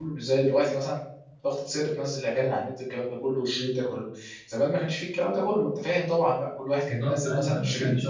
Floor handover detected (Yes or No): Yes